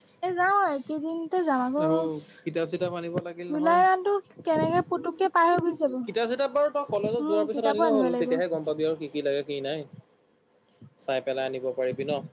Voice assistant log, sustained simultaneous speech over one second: present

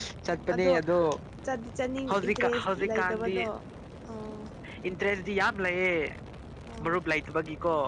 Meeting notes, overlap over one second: present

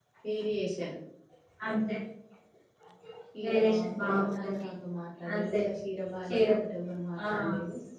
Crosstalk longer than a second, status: present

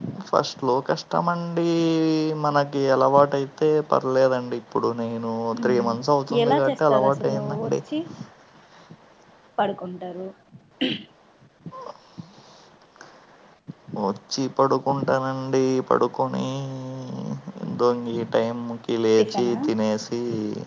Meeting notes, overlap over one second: present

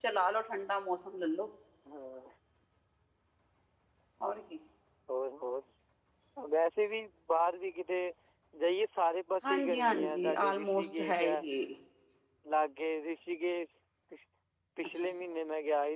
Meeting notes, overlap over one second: present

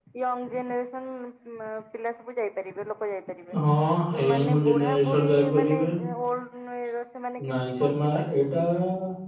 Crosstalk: present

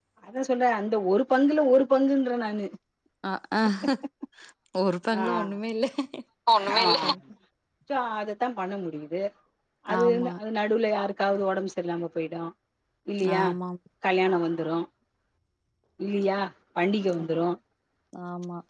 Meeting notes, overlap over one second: none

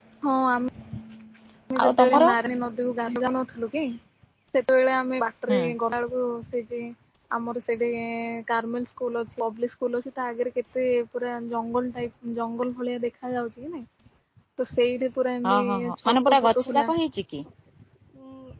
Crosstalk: present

